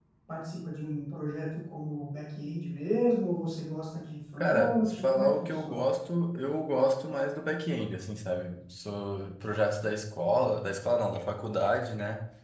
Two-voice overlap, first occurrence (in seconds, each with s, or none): 4.4 s